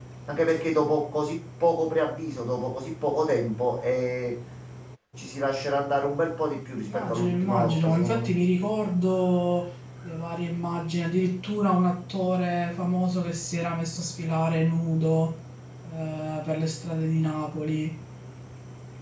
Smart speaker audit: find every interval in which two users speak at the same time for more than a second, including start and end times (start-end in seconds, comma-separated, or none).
6.8-8.3